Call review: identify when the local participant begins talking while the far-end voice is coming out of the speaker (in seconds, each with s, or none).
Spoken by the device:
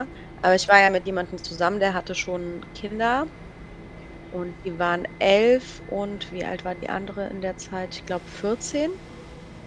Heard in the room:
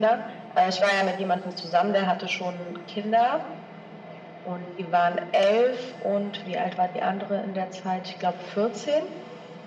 none